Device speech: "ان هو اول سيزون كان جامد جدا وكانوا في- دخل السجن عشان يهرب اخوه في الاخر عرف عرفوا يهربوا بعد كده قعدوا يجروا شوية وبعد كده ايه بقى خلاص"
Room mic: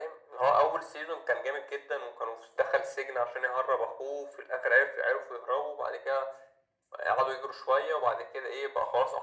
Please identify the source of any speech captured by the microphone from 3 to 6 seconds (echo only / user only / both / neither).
echo only